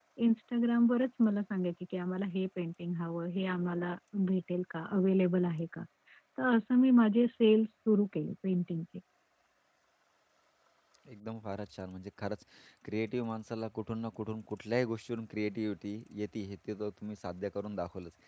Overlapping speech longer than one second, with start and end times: none

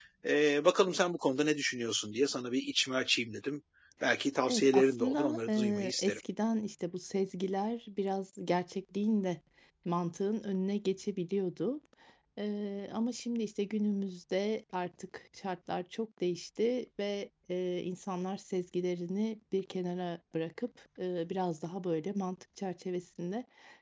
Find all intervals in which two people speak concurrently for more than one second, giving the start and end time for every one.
4.4-6.2

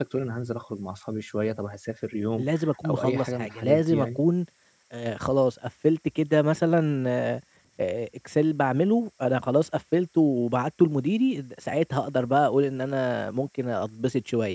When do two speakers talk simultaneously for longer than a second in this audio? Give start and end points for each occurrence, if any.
2.9-4.2

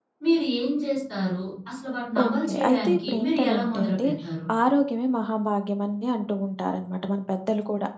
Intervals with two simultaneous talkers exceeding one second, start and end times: 2.2-4.1

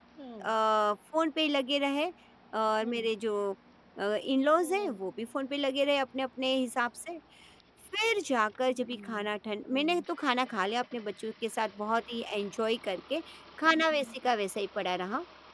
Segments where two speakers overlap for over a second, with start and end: none

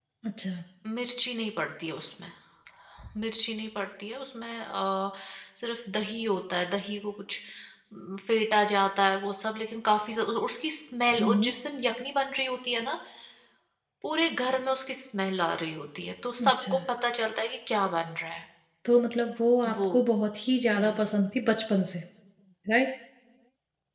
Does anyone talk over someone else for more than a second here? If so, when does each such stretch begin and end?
none

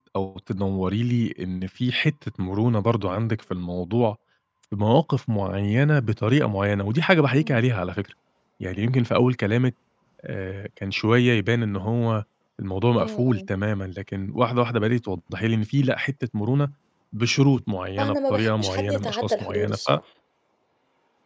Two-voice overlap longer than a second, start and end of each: 18.0-19.8

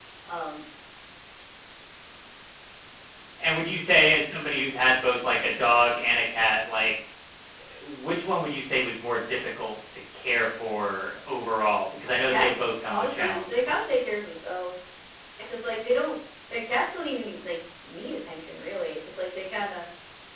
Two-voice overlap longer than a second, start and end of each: 12.0-13.9

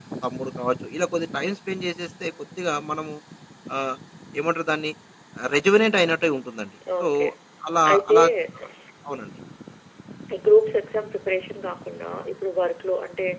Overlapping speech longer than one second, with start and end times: none

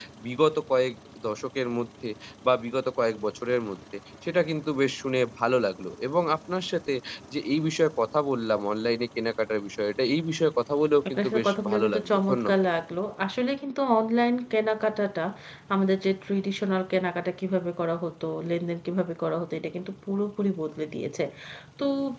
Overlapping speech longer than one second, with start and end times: 11.1-12.6

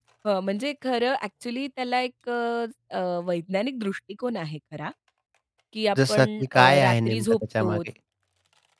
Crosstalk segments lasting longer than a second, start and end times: 6.1-7.8

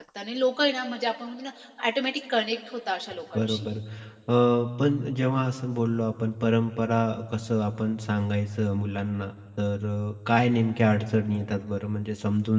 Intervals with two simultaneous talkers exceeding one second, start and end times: none

